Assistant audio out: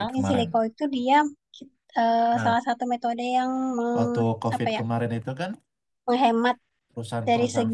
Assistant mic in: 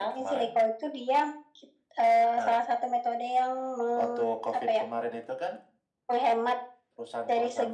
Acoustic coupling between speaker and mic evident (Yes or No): Yes